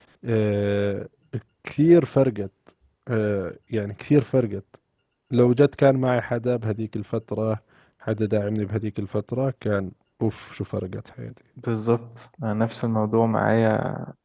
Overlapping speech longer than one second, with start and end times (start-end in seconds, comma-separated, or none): none